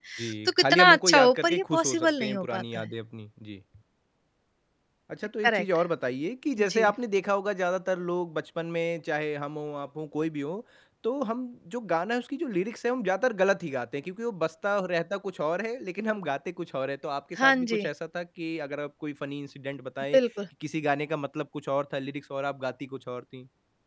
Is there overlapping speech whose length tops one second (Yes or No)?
Yes